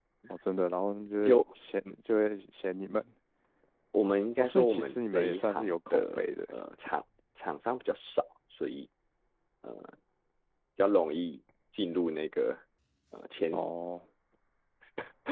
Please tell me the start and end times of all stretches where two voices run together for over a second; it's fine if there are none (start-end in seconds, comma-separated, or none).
4.4-6.3